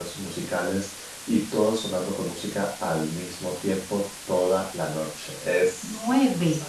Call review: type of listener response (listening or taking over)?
taking over